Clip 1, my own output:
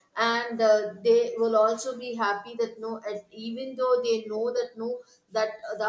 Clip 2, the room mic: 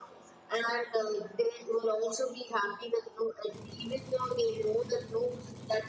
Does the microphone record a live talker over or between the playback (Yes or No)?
No